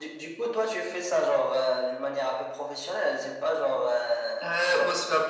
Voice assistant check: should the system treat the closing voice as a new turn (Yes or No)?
Yes